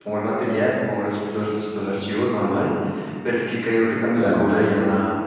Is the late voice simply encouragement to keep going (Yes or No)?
Yes